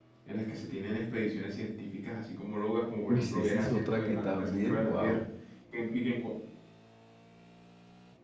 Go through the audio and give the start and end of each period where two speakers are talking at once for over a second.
3.1-5.2

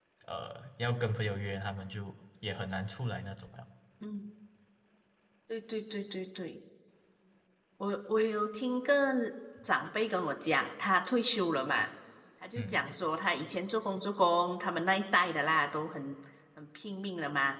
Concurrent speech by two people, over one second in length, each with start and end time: none

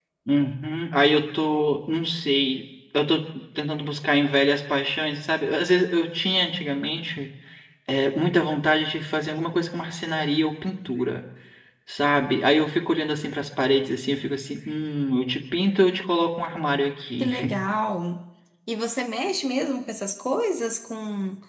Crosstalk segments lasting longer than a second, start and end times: none

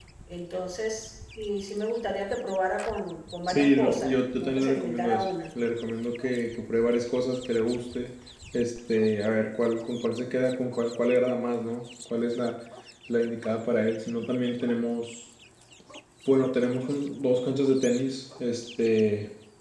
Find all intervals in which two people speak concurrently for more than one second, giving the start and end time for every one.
3.5-5.2

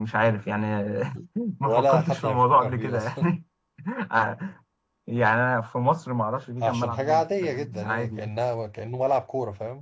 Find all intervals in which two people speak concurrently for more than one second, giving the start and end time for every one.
1.6-3.3, 6.6-8.3

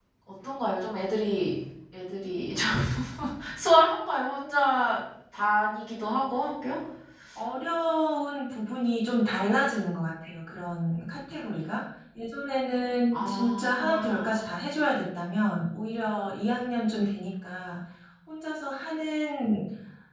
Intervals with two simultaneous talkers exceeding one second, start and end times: 13.1-14.4

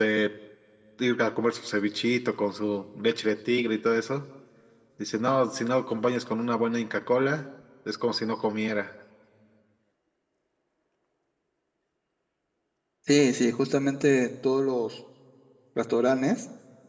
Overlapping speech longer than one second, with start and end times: none

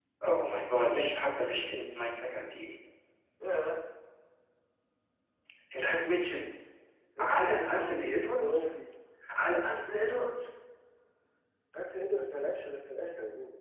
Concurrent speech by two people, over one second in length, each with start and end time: 7.2-8.7

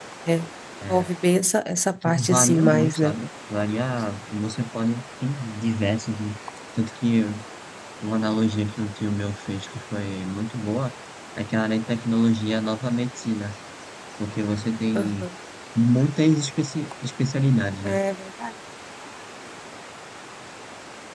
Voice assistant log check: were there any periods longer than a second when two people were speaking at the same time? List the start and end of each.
1.9-3.1

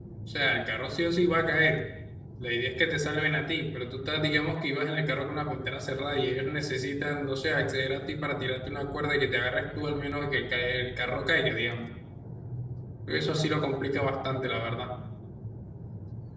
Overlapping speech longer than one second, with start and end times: none

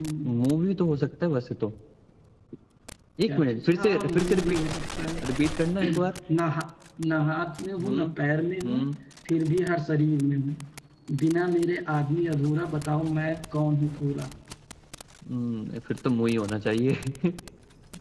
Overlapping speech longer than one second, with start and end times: 3.2-4.6

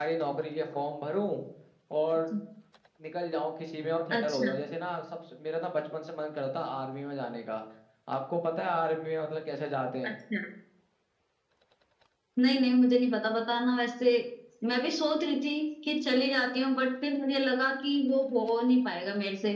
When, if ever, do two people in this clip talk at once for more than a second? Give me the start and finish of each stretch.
none

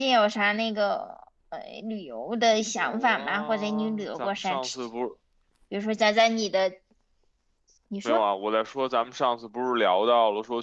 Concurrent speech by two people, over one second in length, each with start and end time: 2.8-4.8

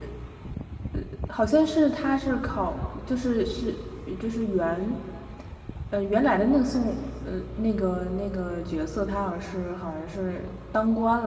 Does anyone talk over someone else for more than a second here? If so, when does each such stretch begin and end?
none

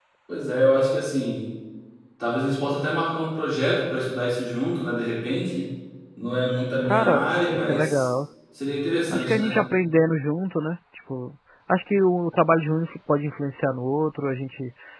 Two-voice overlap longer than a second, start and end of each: 6.8-8.1

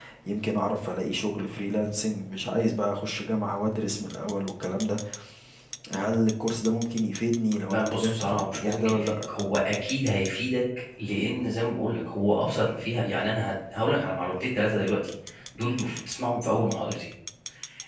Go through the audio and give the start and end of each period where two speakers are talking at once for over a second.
7.6-9.1

